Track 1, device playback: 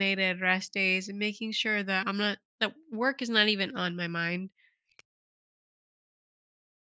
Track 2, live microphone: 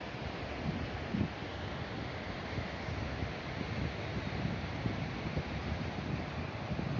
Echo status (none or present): none